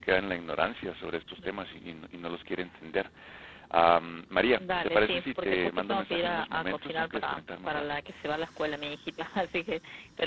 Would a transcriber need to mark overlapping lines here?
Yes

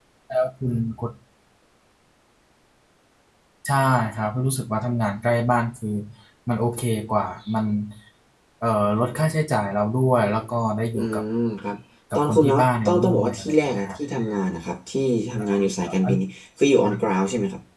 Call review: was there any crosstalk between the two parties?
Yes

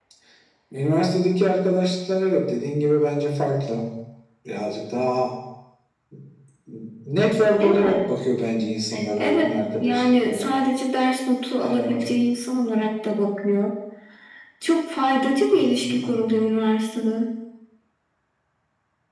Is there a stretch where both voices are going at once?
Yes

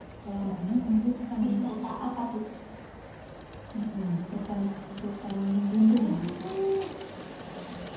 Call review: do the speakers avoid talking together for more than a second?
Yes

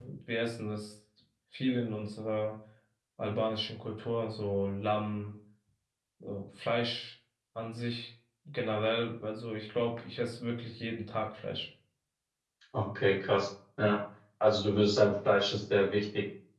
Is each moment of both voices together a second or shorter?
Yes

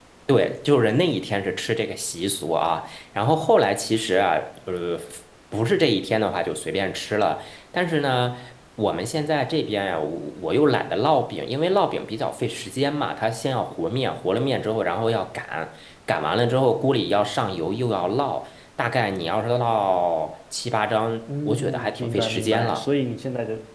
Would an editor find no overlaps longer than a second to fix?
No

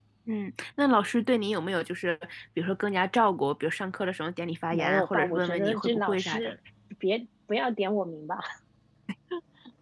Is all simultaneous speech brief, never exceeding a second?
No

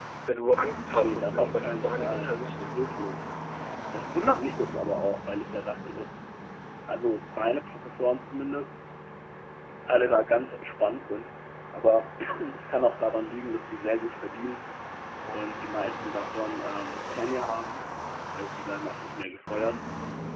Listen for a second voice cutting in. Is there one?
Yes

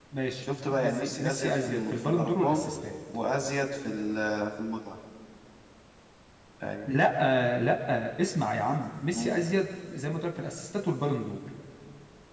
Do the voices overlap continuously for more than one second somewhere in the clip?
Yes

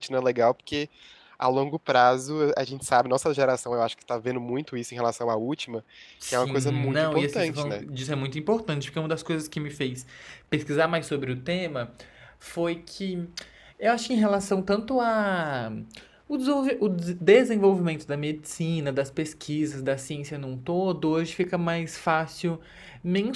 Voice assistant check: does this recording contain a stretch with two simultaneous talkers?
Yes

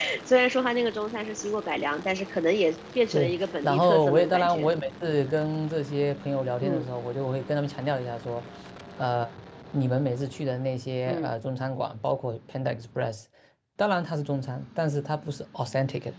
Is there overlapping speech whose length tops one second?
Yes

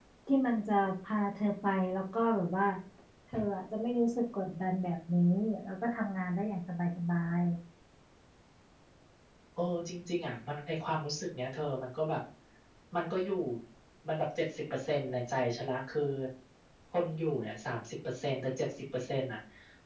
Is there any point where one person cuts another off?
No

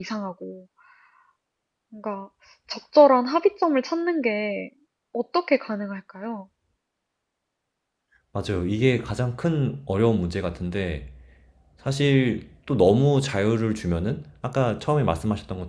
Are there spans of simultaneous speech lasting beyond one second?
No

